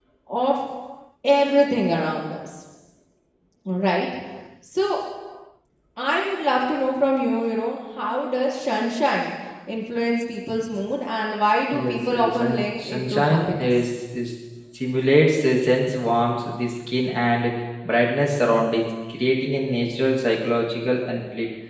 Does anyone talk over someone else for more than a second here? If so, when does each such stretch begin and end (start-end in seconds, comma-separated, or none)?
11.7-13.7